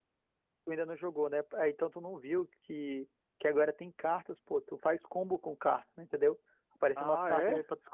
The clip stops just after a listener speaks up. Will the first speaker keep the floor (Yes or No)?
Yes